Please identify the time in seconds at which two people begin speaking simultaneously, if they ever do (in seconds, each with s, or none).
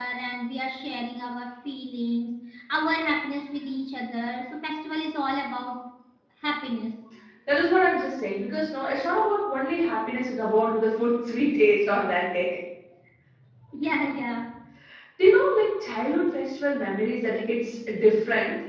none